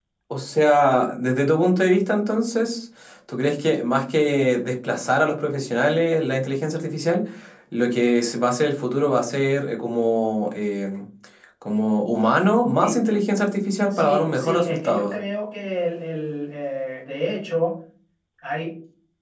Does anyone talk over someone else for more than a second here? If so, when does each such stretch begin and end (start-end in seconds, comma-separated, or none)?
13.9-15.2